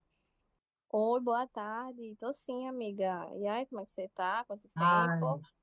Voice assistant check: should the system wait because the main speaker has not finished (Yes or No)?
No